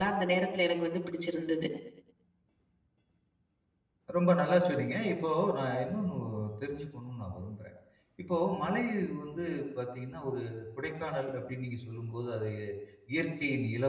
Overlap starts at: none

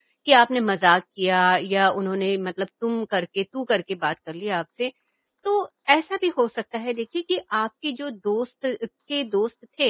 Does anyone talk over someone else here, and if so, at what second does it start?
none

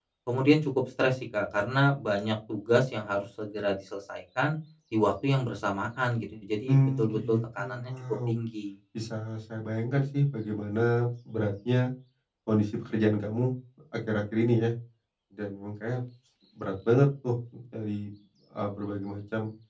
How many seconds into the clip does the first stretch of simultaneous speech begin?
6.7 s

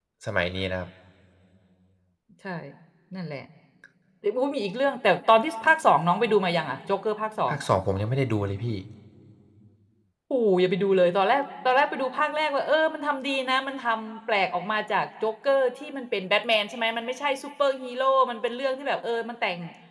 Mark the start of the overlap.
none

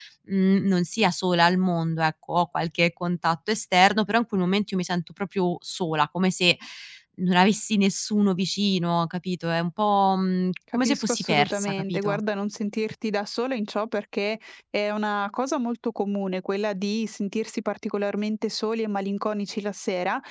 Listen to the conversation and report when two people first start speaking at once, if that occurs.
10.7 s

